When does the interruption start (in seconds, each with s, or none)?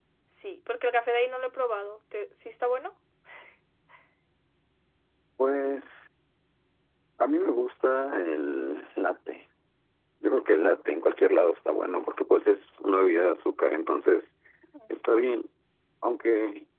none